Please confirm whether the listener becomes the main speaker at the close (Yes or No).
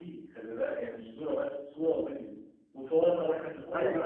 No